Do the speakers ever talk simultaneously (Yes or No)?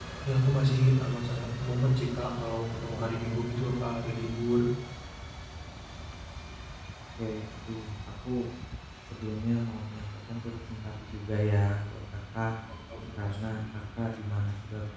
No